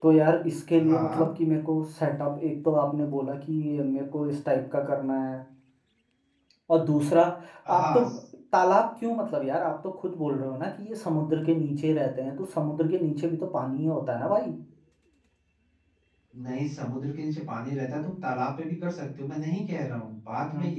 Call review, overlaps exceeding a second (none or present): none